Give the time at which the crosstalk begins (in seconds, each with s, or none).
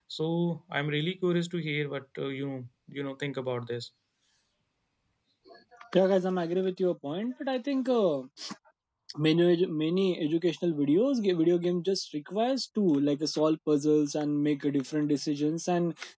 none